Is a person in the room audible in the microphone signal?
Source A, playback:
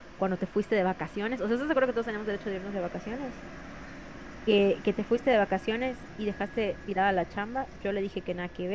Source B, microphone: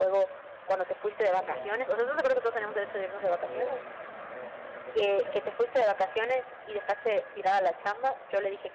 Yes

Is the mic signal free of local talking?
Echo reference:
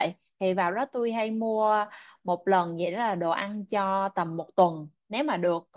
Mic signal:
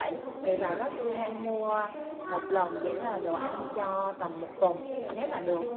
No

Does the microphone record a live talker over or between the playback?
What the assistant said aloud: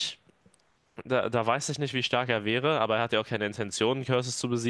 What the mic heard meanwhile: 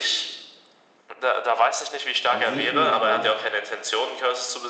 Yes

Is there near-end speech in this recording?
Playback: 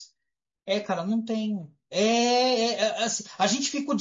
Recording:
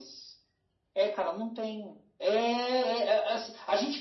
No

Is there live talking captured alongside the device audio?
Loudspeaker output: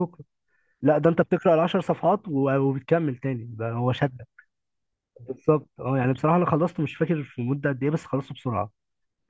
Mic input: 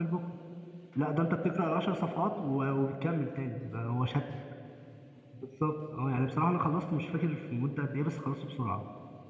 No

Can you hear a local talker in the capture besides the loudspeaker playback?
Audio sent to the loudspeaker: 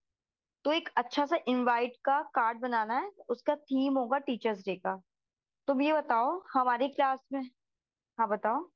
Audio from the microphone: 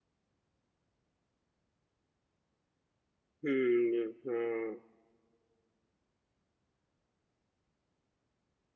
Yes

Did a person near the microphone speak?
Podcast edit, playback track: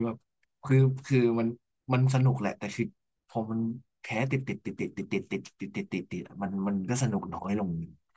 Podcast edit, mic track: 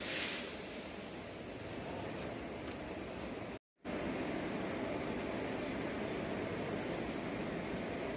No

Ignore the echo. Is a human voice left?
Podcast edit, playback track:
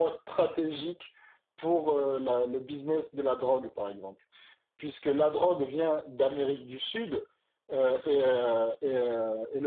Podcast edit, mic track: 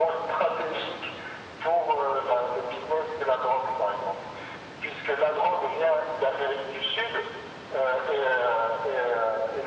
No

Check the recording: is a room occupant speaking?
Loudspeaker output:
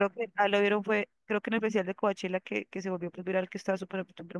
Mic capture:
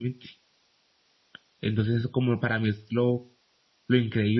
Yes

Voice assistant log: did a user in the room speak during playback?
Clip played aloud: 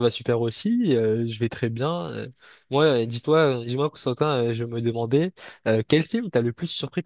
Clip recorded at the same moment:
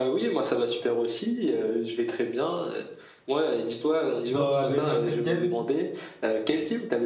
Yes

